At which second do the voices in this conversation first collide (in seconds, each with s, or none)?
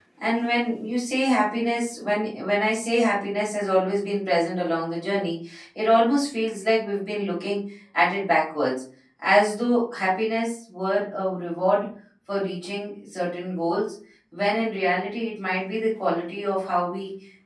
none